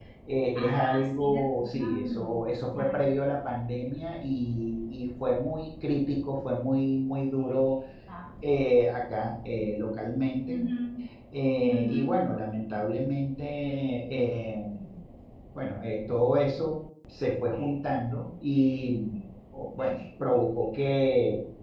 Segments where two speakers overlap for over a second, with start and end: 0.6-2.3

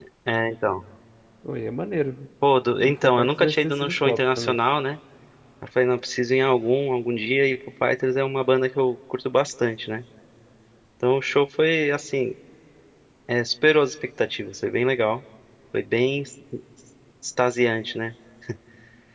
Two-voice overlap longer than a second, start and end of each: 2.8-4.6

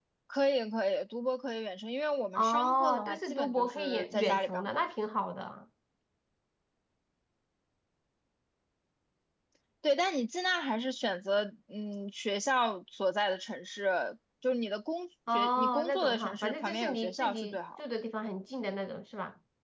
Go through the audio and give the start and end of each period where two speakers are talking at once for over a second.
2.4-4.8, 15.3-17.8

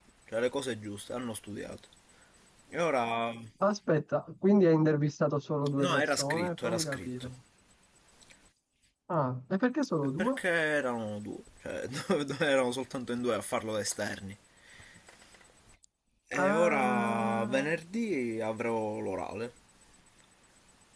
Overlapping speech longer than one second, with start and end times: 5.8-7.3, 16.3-17.7

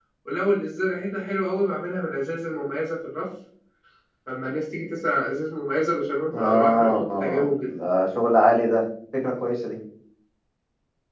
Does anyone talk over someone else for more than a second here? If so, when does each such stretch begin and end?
6.3-7.7

